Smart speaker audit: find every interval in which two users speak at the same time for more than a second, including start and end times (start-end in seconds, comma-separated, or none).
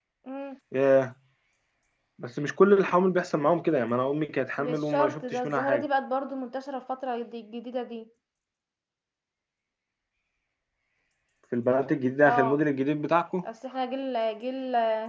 4.6-5.8